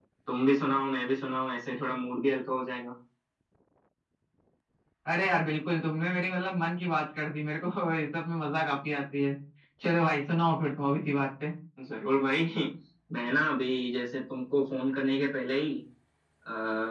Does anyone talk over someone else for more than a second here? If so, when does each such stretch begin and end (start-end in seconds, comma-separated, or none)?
none